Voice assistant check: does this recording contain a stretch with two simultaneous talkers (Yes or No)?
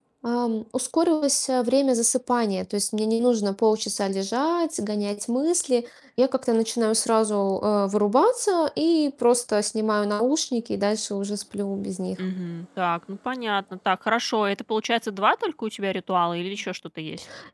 No